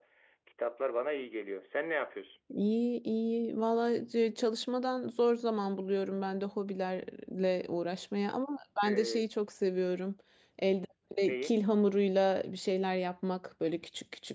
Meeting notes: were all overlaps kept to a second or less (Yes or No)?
Yes